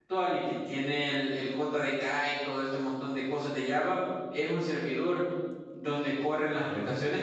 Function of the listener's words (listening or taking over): listening